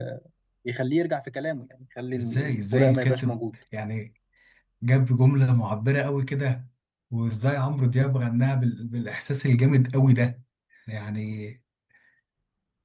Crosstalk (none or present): present